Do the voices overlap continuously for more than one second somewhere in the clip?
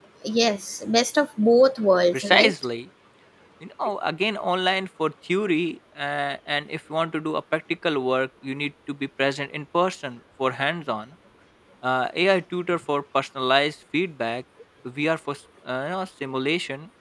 No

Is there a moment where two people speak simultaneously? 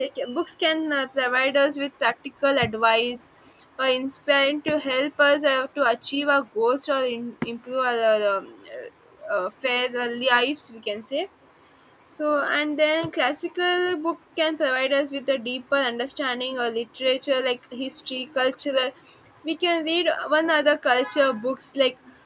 No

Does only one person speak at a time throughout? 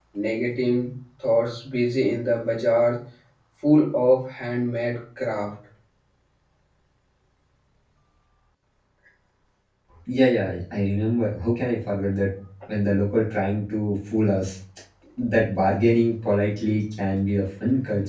Yes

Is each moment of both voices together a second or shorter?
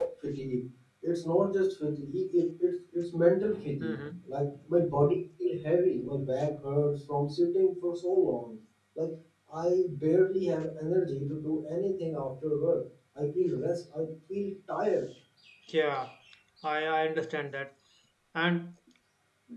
Yes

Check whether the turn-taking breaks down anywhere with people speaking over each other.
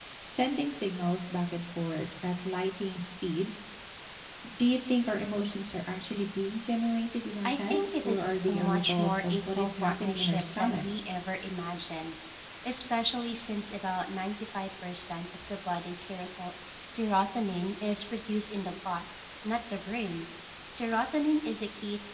Yes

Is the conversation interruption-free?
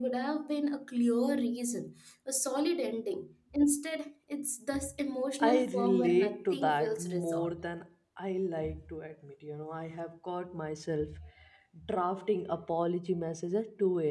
No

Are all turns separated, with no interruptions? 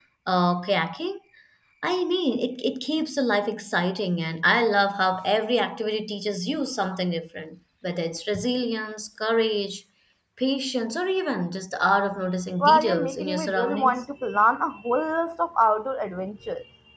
No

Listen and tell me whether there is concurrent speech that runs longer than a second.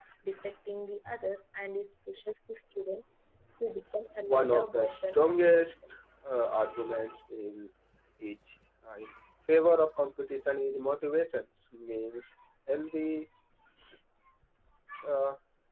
Yes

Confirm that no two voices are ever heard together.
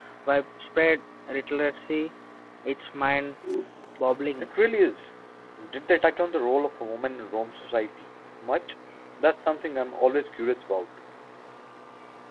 Yes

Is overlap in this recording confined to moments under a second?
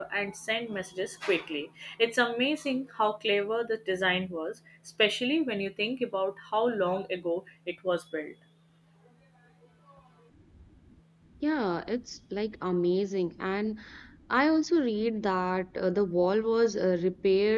Yes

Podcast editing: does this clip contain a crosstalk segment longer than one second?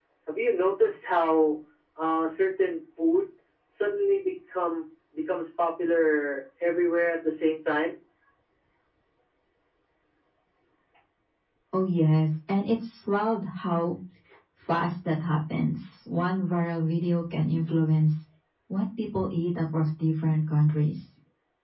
No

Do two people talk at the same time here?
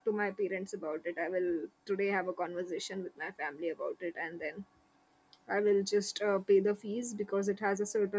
No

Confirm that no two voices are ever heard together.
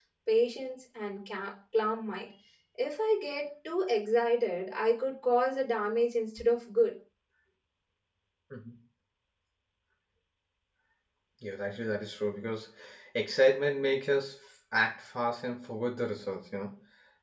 Yes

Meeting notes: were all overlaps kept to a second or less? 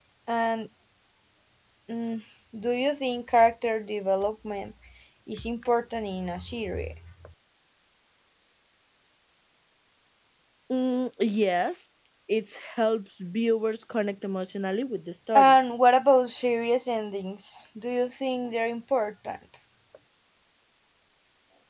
Yes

